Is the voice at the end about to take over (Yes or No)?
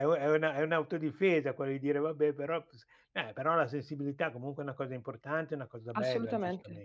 Yes